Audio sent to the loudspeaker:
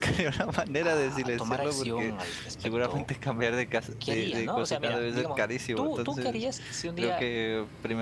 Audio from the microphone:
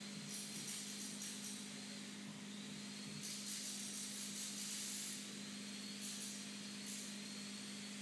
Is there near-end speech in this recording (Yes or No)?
No